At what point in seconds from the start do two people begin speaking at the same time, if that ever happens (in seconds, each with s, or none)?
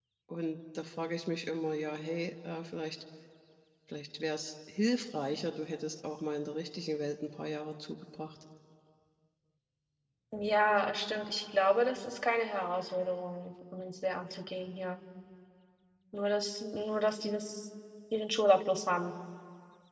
none